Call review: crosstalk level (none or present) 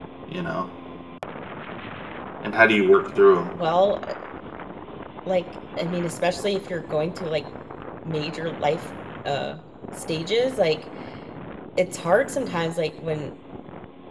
none